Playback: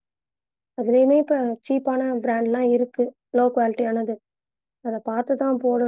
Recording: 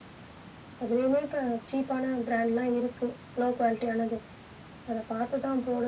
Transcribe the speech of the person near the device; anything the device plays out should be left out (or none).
none